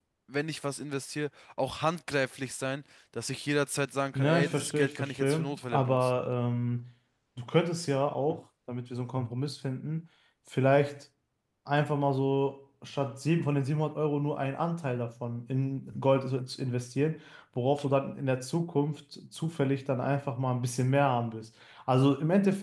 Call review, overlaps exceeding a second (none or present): present